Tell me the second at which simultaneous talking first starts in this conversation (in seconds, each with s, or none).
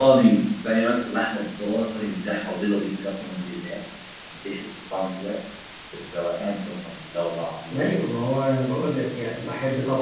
none